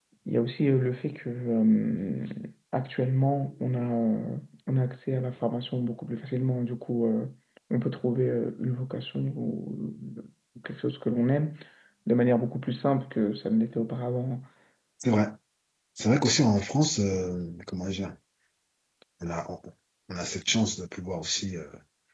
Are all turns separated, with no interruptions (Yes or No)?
Yes